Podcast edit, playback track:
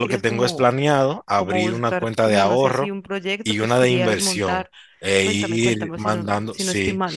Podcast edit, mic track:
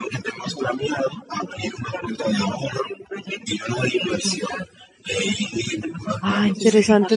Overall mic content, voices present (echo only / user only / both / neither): both